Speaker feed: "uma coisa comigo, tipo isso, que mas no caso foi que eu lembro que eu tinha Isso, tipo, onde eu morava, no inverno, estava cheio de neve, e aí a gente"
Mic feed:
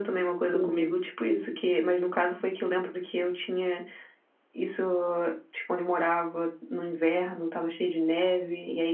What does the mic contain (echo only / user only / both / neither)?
both